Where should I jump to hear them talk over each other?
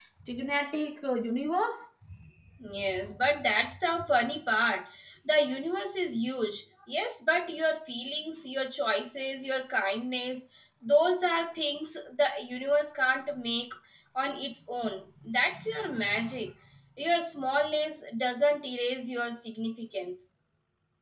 none

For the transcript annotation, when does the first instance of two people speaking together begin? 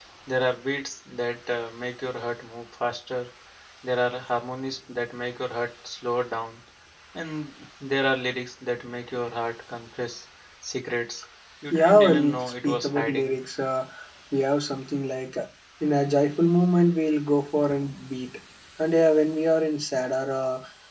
12 s

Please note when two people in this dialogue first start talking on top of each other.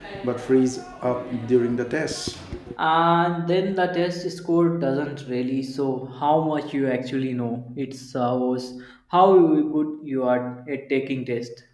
none

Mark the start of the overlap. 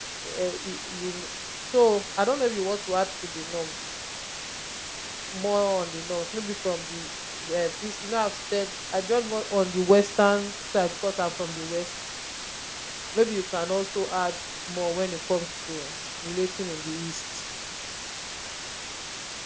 none

